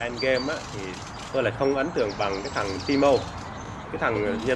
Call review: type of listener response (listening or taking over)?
listening